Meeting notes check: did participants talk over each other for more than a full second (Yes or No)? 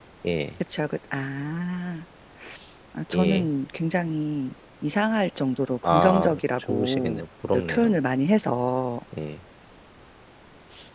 Yes